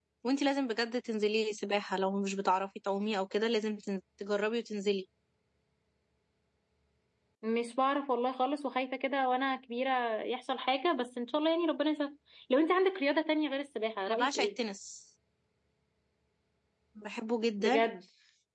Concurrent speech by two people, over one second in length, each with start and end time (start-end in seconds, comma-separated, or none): none